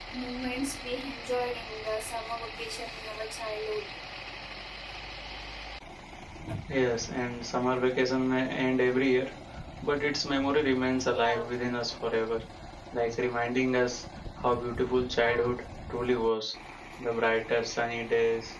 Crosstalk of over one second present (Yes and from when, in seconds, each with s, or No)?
No